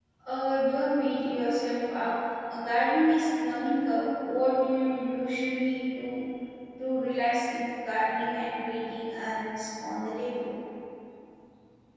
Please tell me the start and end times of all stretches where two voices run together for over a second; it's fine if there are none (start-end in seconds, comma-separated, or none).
none